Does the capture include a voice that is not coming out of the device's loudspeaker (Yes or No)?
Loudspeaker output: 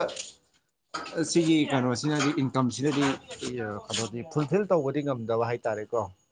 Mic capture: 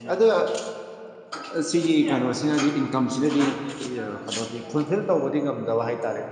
No